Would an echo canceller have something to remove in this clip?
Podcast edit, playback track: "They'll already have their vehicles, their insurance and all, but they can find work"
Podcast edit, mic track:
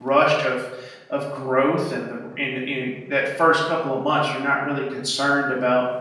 No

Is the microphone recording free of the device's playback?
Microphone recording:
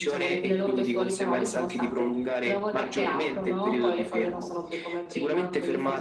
No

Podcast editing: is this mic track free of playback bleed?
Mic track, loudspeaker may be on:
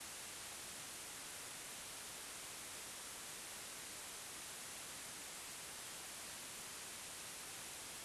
Yes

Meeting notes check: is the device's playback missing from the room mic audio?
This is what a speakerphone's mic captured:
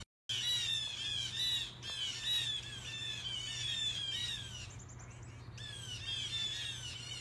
Yes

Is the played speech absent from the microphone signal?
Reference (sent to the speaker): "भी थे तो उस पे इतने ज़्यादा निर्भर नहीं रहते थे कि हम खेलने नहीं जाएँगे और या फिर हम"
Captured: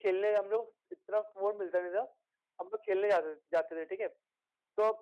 Yes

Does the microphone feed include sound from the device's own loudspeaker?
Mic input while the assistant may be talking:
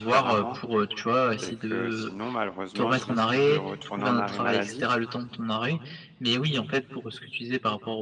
Yes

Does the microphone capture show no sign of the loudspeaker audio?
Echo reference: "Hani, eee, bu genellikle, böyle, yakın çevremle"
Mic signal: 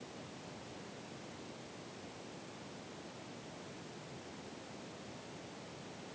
Yes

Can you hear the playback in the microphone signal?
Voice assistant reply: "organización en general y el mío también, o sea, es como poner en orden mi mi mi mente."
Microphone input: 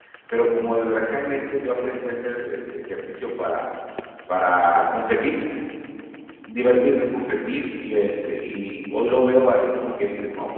No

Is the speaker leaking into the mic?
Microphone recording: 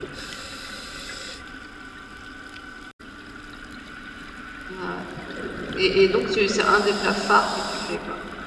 No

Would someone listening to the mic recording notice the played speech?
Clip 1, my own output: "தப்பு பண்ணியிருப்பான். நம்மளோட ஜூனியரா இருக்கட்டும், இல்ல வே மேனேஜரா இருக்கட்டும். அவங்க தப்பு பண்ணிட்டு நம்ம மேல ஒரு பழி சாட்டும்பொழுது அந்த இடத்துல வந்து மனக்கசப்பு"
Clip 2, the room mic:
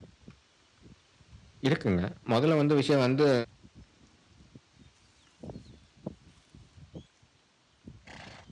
No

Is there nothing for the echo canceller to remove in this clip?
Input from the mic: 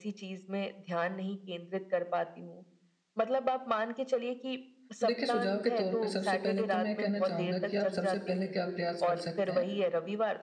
No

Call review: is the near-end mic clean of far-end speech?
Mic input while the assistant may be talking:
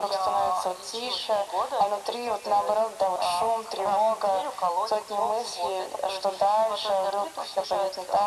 No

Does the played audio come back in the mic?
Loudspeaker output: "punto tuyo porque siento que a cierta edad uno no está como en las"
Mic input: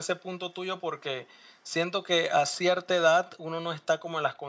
Yes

